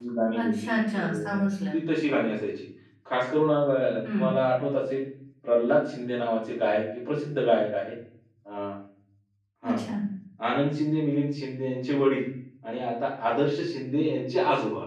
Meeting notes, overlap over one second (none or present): none